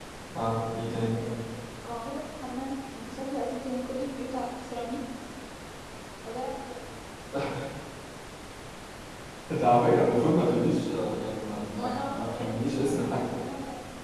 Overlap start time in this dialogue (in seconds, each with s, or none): 11.7 s